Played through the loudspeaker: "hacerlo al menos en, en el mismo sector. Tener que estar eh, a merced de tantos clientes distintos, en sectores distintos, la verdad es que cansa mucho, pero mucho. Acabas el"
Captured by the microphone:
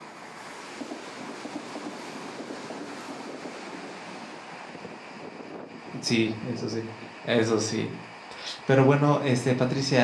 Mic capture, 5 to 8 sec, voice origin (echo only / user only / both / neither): user only